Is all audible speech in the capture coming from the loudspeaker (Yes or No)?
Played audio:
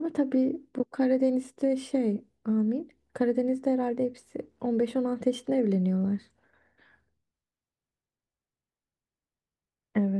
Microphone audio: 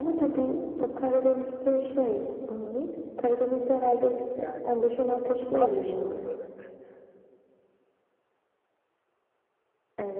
No